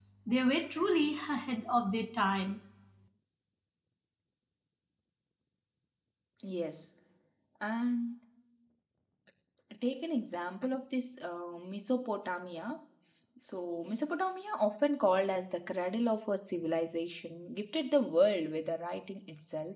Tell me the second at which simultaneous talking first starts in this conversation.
none

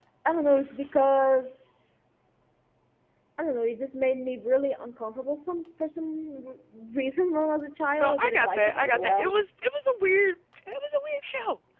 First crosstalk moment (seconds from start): 8 s

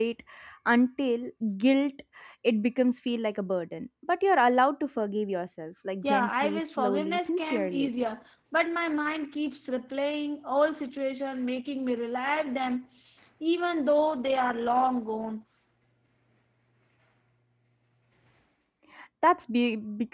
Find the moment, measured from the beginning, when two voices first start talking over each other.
6 s

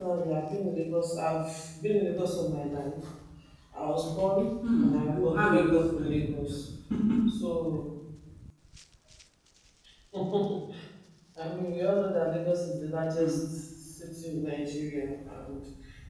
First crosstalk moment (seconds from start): 5 s

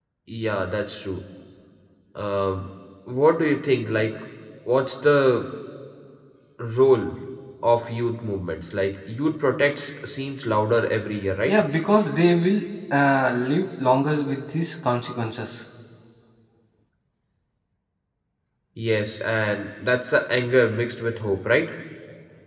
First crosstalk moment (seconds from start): none

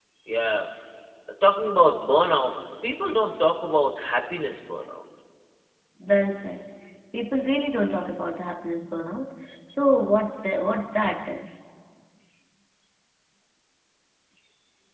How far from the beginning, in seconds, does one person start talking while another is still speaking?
none

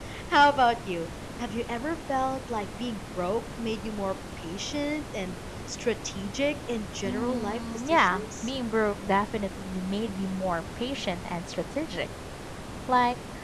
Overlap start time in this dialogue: 7 s

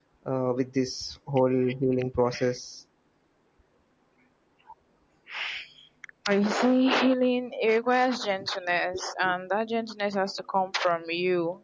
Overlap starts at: none

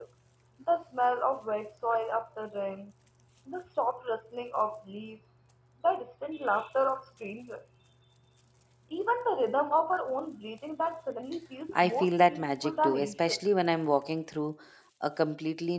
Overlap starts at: 12 s

